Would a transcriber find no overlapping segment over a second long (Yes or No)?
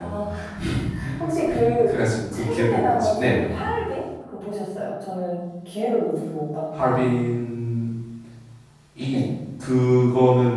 No